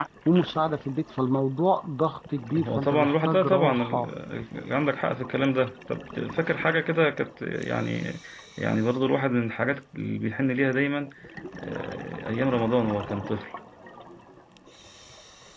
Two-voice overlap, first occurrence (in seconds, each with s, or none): 2.5 s